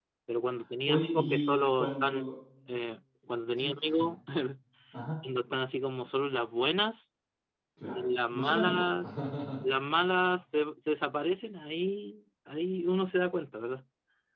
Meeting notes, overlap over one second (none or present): present